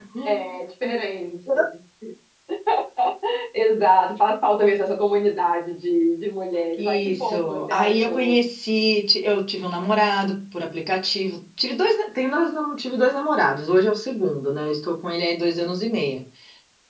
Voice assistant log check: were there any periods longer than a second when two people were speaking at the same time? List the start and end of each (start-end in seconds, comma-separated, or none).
6.8-8.4